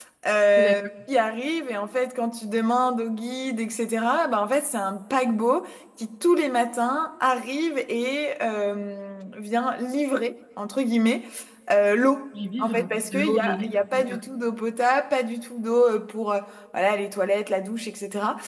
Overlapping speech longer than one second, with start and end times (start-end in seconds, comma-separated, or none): 12.6-14.2